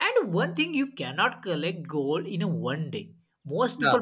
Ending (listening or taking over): listening